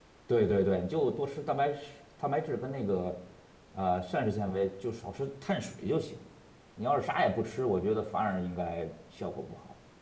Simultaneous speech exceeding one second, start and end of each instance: none

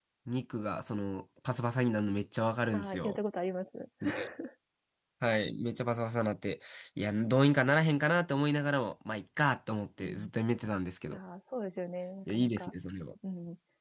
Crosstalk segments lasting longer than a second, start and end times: none

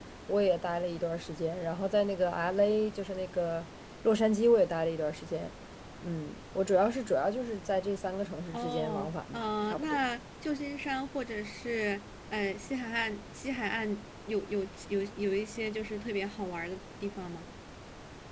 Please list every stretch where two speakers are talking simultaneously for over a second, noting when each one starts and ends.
8.5-10.0

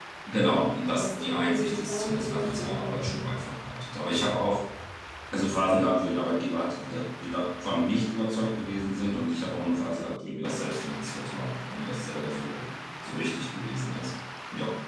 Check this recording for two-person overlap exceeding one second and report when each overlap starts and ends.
0.8-3.3

